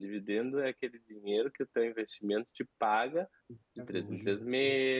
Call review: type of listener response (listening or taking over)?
listening